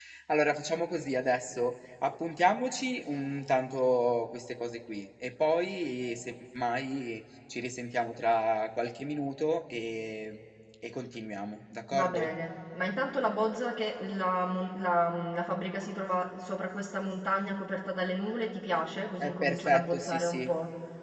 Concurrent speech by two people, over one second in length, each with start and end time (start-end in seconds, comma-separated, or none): 19.2-20.5